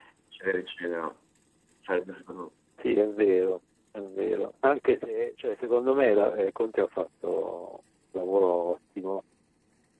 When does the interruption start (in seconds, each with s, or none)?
none